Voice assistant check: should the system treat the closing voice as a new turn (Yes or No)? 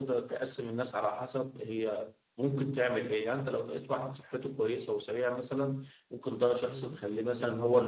No